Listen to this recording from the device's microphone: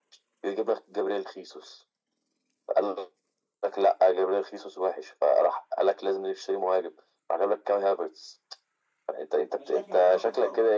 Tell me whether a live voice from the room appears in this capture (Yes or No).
Yes